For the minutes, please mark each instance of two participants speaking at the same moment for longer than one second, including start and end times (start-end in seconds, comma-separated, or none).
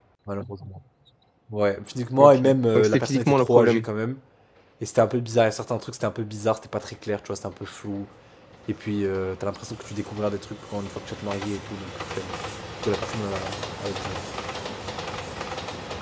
2.2-3.8